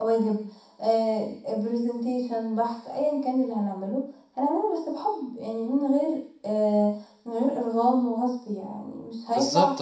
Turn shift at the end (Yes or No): Yes